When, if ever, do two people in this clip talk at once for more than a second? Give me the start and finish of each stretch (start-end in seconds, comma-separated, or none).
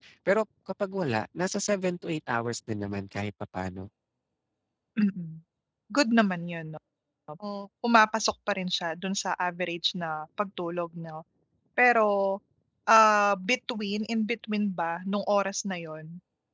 none